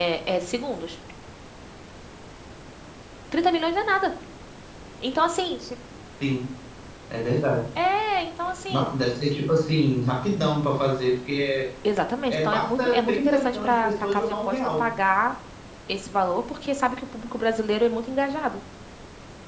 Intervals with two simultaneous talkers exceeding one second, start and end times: 12.3-14.8

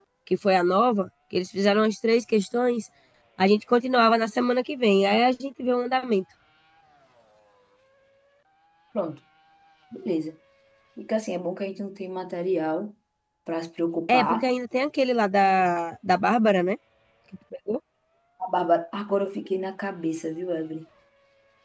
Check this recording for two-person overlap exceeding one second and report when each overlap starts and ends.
none

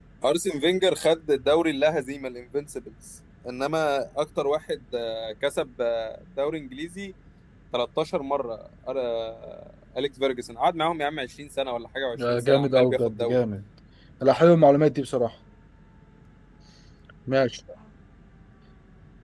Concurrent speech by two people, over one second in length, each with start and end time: 12.2-13.4

